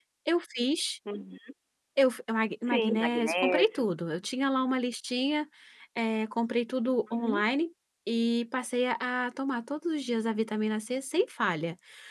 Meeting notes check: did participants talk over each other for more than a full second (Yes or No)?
Yes